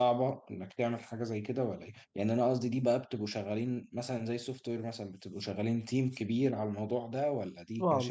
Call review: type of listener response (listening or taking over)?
taking over